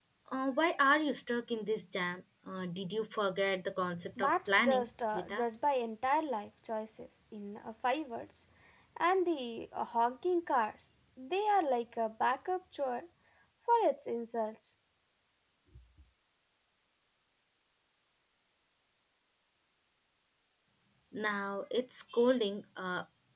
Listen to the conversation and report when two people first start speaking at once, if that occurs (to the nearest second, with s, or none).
4 s